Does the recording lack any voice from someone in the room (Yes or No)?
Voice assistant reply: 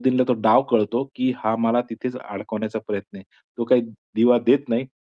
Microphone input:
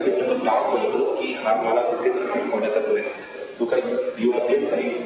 Yes